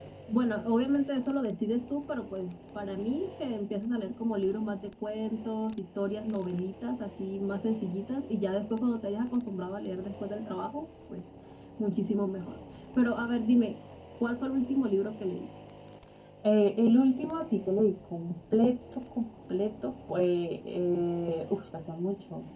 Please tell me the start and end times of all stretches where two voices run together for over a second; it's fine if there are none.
none

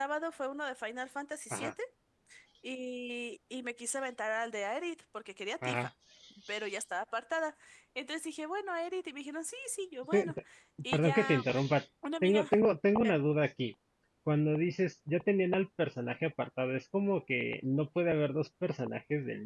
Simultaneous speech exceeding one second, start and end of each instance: none

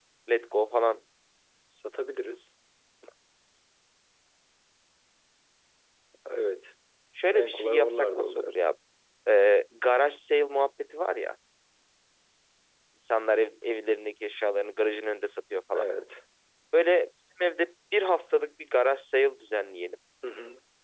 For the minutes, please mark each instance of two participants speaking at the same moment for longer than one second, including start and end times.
7.3-8.6

